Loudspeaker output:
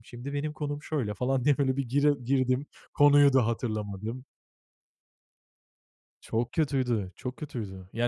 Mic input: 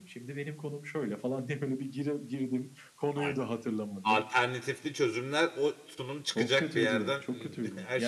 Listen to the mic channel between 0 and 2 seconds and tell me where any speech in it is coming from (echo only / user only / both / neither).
echo only